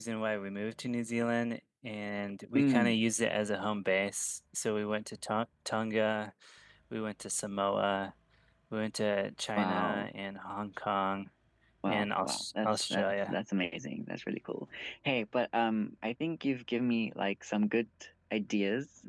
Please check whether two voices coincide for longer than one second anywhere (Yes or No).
Yes